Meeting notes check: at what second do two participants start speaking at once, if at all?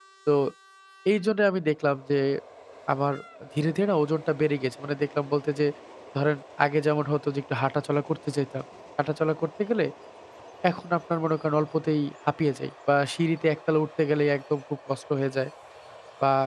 none

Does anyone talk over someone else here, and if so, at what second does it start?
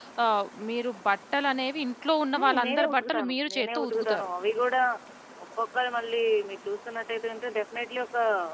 2.3 s

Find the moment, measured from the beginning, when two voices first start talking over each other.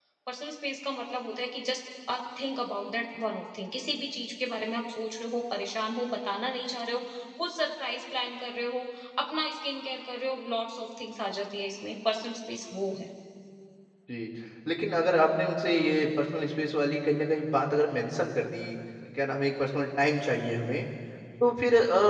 none

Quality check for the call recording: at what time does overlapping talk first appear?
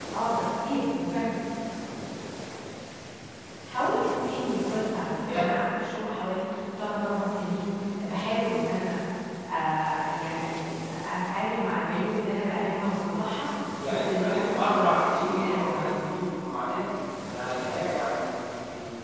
13.8 s

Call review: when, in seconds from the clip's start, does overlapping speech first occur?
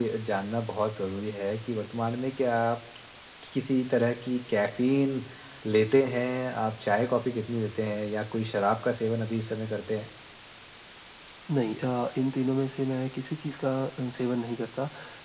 none

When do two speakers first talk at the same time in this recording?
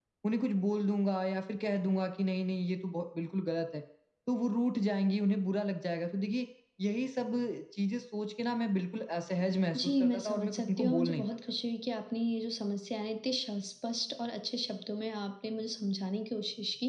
9.7 s

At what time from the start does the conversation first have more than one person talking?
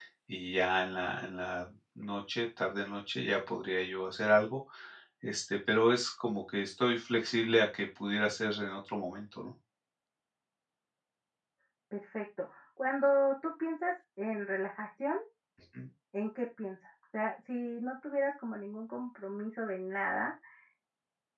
none

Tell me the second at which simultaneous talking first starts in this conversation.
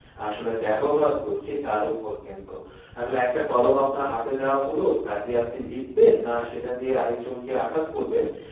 none

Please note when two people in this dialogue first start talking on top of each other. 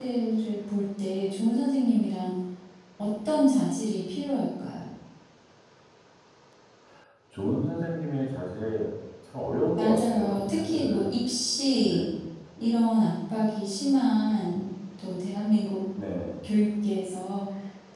9.8 s

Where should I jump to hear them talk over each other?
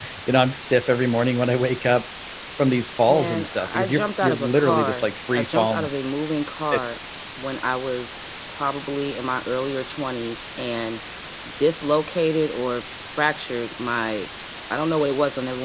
3.1 s

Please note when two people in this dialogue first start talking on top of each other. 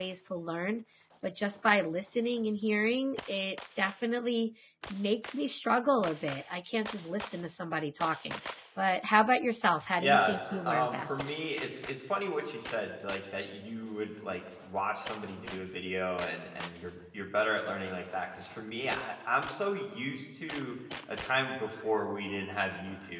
10.0 s

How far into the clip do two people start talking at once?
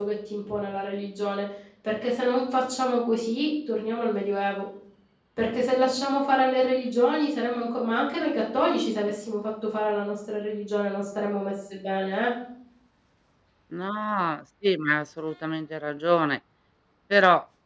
none

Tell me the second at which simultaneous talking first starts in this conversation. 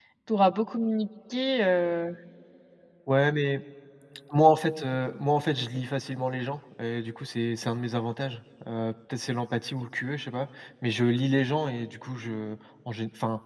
none

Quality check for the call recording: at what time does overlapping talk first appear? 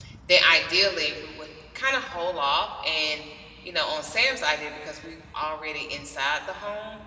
none

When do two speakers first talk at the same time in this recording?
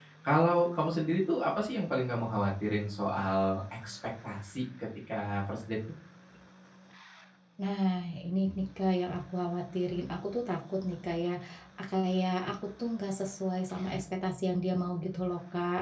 none

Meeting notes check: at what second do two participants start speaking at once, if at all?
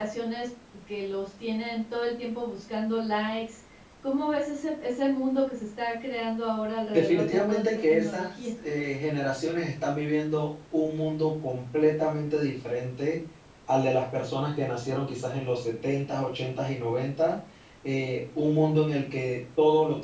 6.9 s

